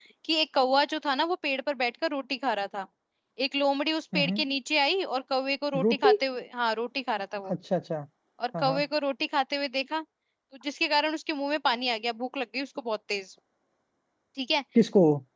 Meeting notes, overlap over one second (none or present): none